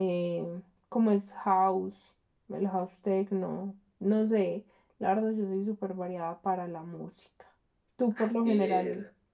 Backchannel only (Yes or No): No